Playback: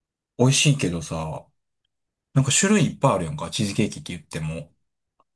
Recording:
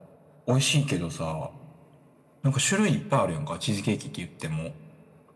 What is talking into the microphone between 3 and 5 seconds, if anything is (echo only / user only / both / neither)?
echo only